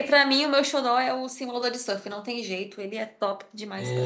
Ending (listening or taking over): taking over